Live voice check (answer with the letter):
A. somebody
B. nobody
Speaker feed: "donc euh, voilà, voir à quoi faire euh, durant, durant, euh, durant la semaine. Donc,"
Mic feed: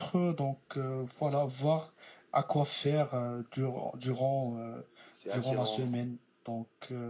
A